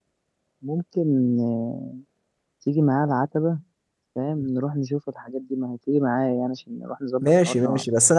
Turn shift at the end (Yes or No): Yes